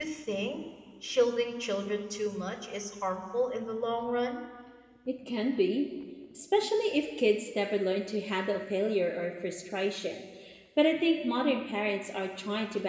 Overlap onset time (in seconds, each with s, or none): none